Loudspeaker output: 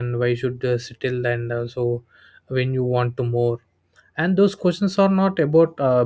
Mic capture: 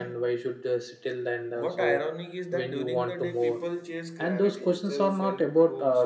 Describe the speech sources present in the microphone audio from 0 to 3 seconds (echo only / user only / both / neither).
both